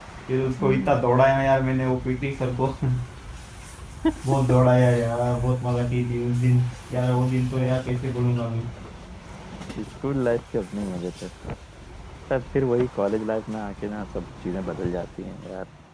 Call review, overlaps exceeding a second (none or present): none